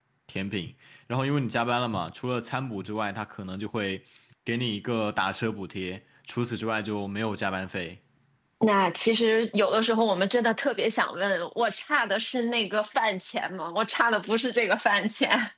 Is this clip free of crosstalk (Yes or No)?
Yes